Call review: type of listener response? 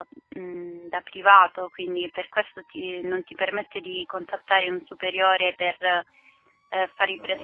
taking over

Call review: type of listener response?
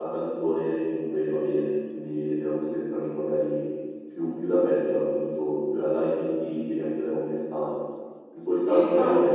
taking over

